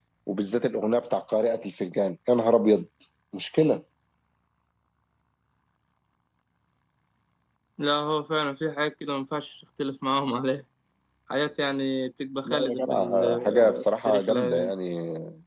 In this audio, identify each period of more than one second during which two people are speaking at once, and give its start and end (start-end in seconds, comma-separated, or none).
12.4-14.7